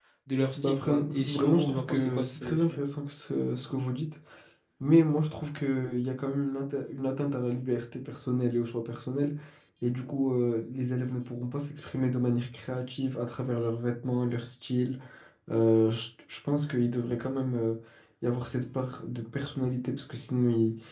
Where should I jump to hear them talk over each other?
0.6 s

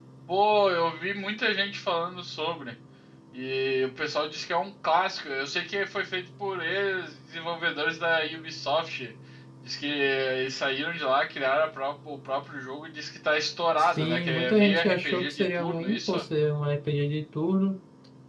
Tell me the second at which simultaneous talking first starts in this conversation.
13.8 s

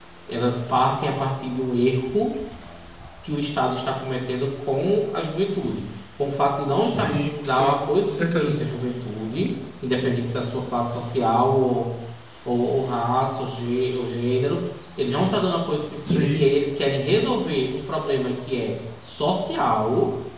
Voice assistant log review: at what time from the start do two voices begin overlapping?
7.0 s

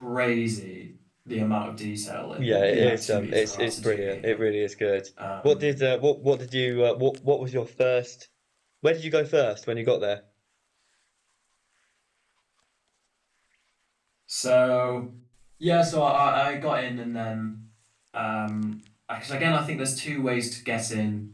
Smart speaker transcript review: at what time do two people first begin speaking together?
2.4 s

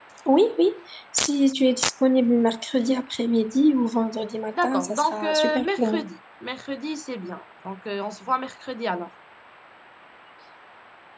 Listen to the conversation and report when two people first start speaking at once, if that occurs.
4.5 s

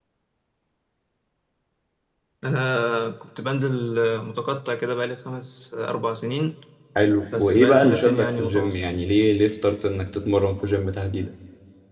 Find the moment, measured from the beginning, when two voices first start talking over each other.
7.3 s

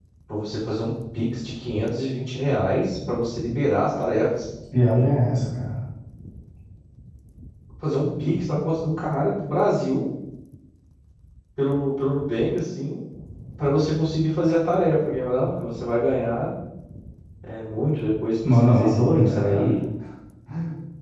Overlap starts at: 18.4 s

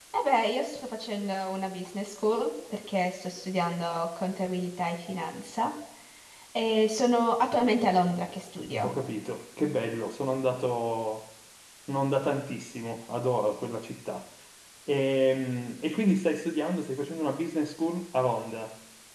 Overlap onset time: none

